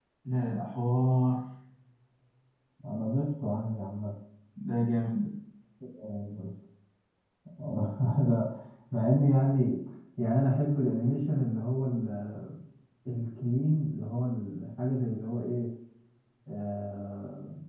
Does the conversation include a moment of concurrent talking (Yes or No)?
No